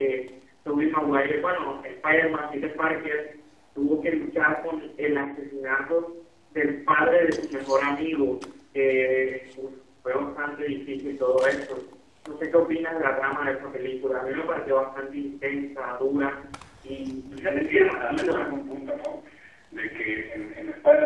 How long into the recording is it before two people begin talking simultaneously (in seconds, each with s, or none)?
17.4 s